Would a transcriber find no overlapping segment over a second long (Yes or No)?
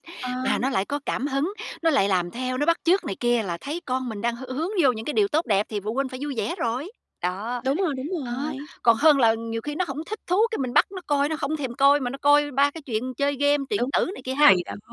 Yes